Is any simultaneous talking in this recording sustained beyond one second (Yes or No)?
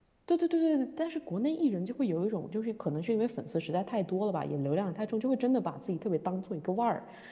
No